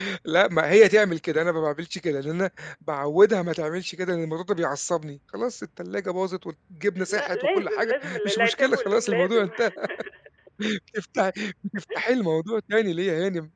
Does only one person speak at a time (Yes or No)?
No